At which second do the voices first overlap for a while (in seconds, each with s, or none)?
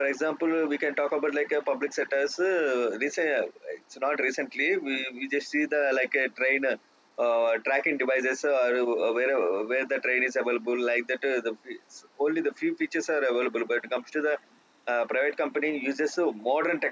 none